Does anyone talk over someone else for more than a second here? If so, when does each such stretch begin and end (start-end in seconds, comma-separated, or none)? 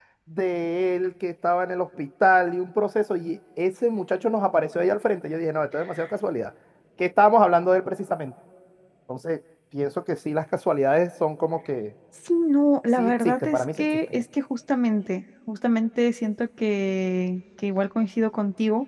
13.0-14.2